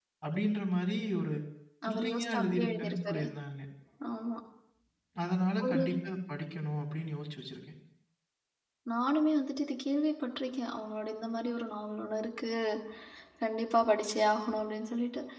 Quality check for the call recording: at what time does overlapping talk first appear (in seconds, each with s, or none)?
1.9 s